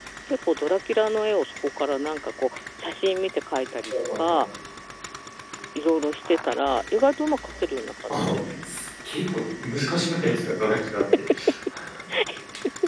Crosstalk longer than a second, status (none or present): none